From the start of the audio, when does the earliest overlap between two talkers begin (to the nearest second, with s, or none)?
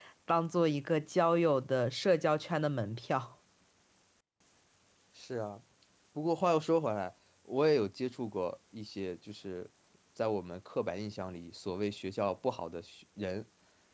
none